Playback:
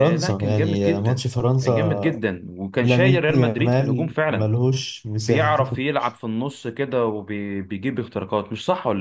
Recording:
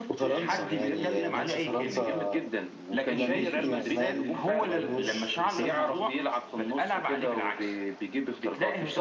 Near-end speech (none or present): present